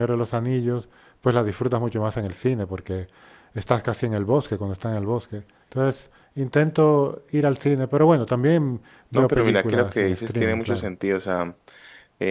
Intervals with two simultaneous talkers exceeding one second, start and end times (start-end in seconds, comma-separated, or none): 9.1-10.9